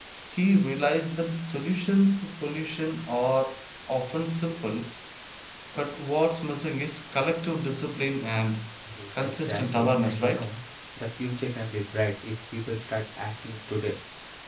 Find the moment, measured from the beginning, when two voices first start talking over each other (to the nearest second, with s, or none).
9 s